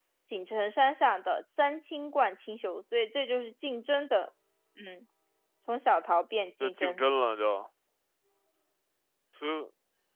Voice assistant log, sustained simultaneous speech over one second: none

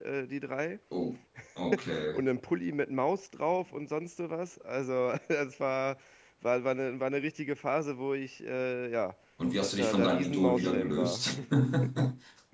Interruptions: present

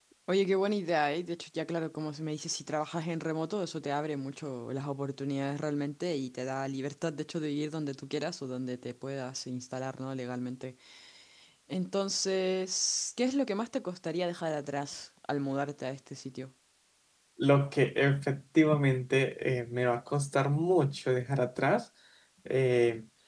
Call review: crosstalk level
none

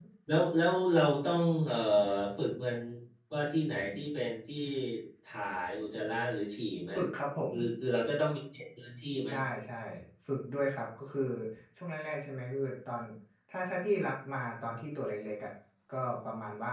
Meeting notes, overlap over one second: none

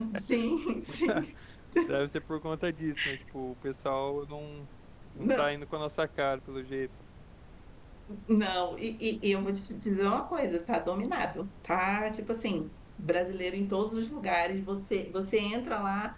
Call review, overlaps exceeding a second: none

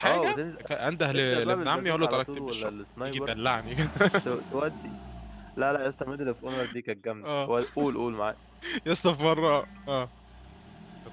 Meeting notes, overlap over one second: present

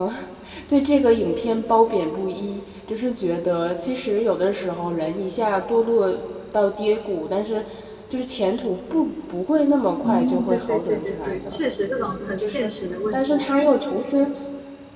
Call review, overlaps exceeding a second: present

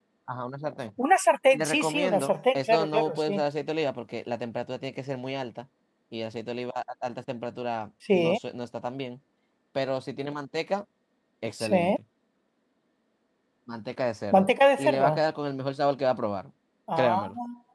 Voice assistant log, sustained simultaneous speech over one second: present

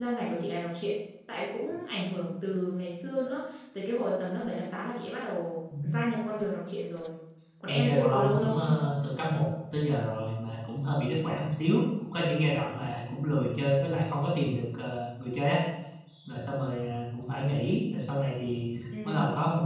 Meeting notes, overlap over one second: present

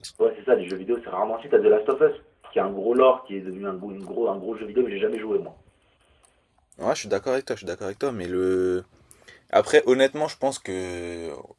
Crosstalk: none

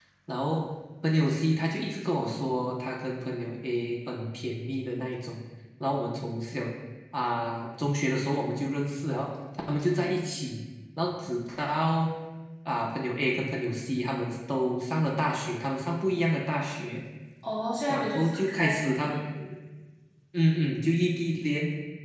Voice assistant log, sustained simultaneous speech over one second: present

